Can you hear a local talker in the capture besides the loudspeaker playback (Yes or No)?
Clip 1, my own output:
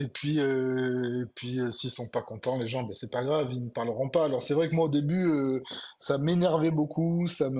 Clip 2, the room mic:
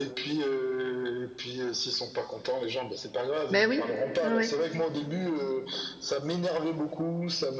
Yes